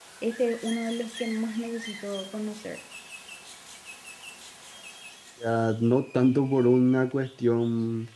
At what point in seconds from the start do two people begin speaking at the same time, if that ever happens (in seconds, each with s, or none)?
none